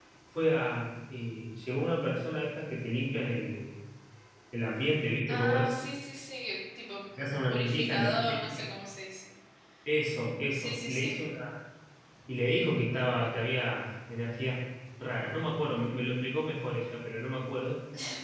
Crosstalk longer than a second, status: present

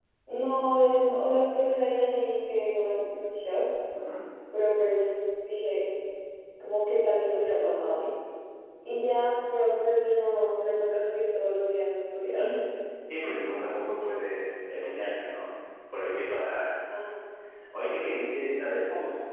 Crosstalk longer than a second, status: none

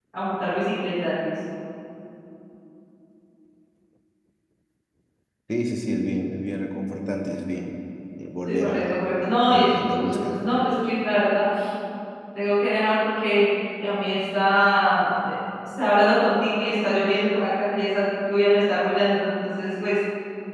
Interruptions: present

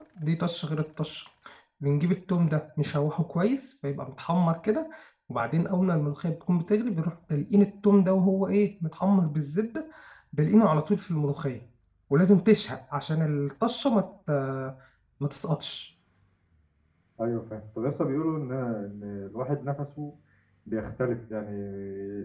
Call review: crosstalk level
none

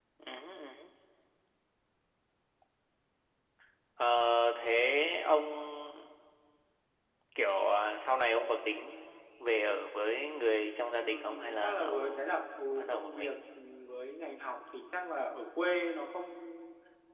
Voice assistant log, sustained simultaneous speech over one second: present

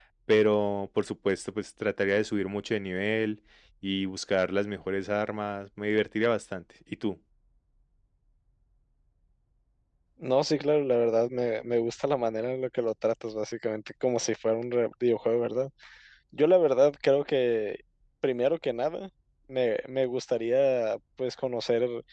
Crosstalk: none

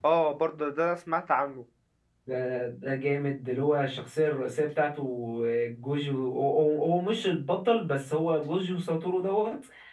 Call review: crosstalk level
none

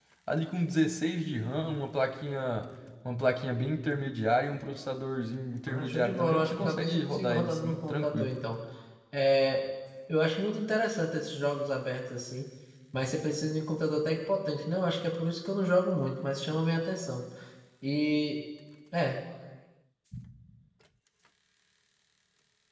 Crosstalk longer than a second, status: present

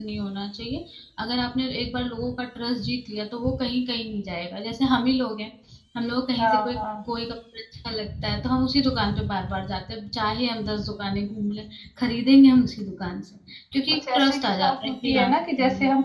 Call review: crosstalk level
present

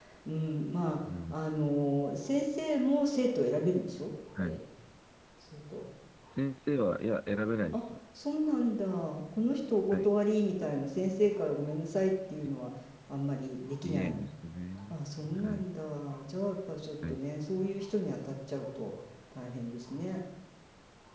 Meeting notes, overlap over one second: none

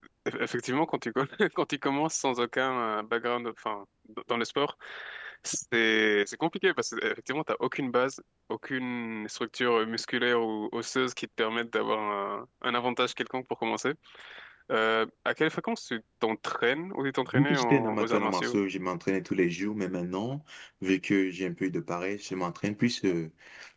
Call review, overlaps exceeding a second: present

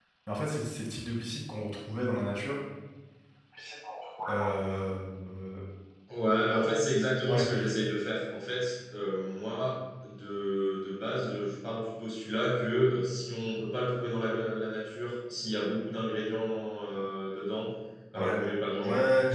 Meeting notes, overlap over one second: none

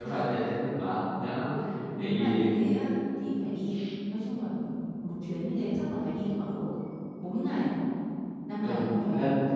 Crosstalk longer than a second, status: none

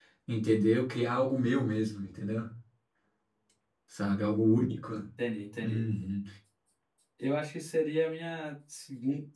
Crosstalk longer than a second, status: none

